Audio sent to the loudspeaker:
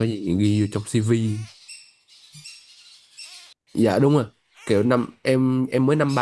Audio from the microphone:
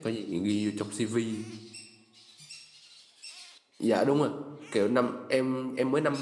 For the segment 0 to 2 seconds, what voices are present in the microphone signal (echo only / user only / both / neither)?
echo only